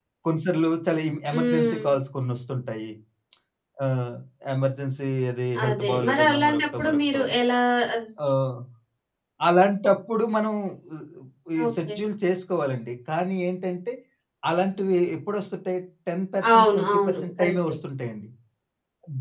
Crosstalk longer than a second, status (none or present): present